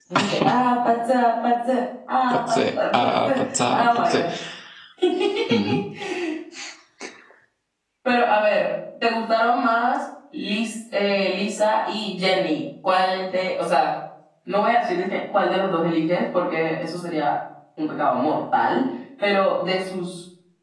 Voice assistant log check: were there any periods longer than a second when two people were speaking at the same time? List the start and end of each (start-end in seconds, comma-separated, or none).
2.3-4.2